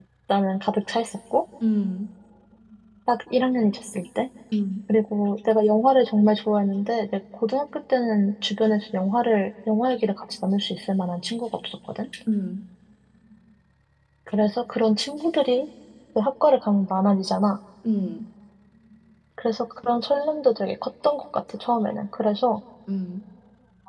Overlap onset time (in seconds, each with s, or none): none